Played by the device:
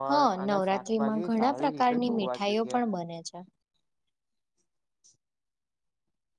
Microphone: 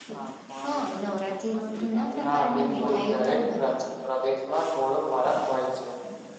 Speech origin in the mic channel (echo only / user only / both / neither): both